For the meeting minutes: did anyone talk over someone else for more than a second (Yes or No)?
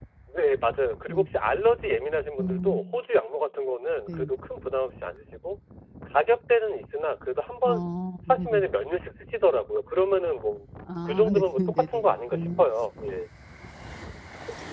Yes